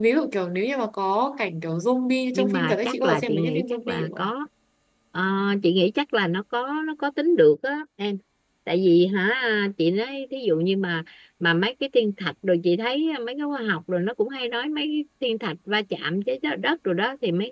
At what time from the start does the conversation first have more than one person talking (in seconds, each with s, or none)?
2.3 s